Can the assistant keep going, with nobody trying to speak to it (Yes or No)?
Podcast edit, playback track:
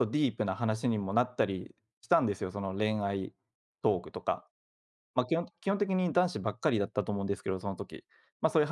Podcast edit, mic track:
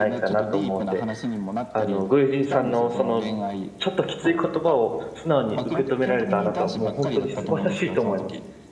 No